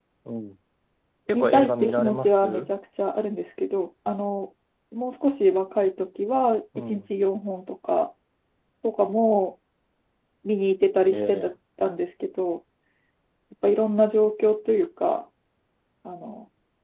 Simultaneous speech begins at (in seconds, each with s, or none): 1.3 s